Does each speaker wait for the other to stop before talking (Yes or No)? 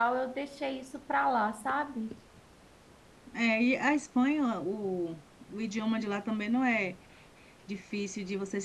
Yes